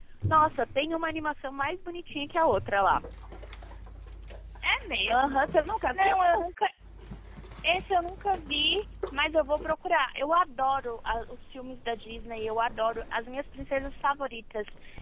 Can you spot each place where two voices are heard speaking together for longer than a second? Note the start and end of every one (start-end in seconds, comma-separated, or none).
none